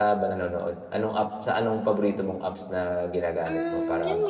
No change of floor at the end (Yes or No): No